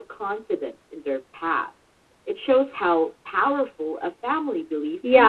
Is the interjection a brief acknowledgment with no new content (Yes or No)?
No